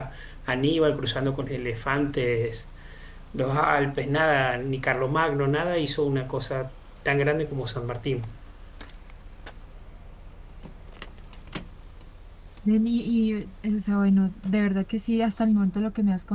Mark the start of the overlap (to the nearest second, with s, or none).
none